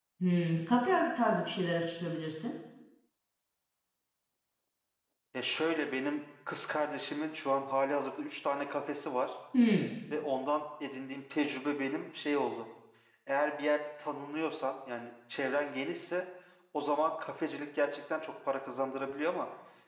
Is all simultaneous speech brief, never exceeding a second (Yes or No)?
Yes